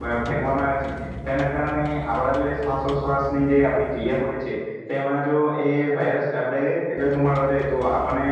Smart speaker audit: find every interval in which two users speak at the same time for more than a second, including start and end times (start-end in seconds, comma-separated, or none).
none